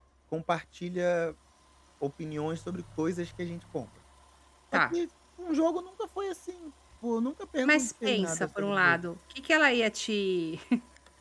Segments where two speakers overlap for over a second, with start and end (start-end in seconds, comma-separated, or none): 7.6-9.1